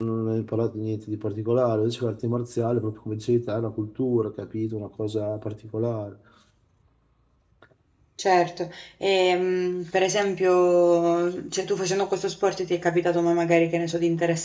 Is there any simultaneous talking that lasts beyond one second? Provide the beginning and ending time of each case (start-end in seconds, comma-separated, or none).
none